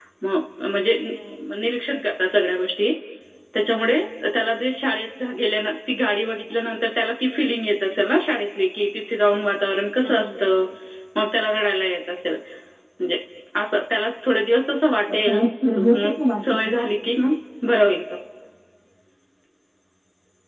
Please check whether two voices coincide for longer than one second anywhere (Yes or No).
Yes